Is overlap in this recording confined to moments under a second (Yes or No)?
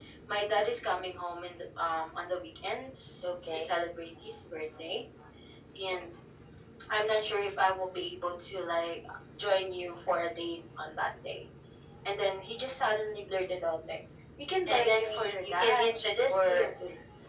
No